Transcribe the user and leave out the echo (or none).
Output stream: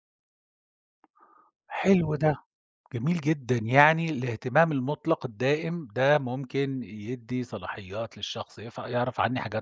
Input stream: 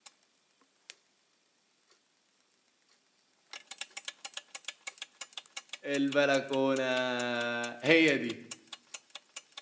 البلكونة، هي دي.